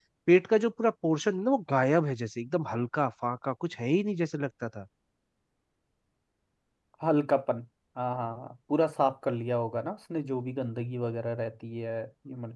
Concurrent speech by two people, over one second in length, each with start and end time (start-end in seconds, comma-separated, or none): none